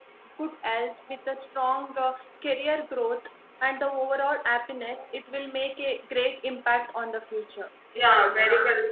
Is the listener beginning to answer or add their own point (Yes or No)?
Yes